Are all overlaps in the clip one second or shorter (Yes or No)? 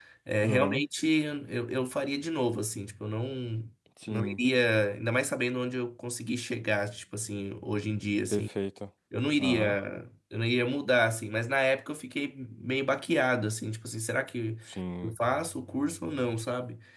Yes